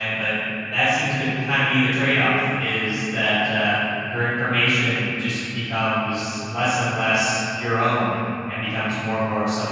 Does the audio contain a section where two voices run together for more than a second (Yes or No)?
No